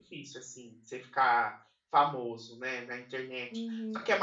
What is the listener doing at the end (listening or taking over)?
taking over